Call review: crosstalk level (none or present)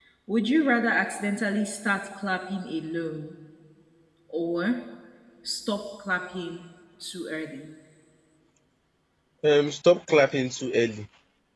none